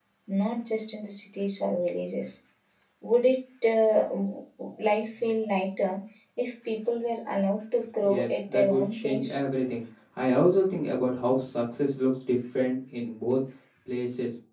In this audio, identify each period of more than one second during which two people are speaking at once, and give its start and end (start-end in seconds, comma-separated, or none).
8.0-9.4